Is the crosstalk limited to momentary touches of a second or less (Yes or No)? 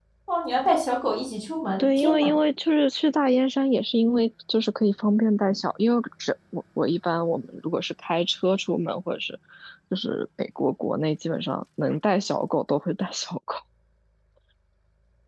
Yes